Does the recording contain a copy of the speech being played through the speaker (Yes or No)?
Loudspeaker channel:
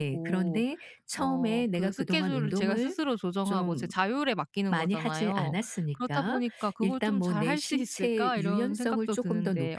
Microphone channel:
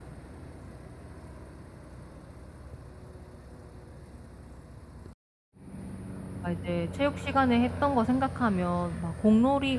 No